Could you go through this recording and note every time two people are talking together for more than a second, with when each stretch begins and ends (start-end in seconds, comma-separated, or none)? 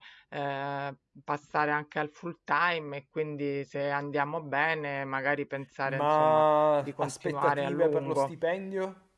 6.8-8.3